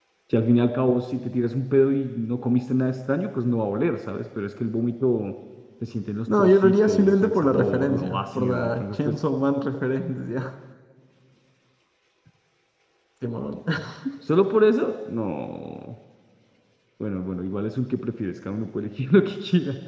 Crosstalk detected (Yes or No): Yes